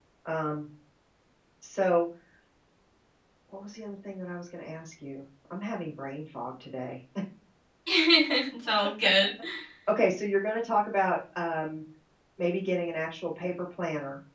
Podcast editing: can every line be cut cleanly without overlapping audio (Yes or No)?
Yes